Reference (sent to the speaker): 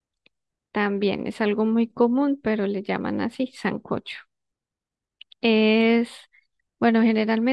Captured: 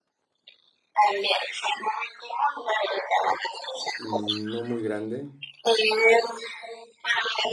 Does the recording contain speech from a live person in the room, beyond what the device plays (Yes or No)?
Yes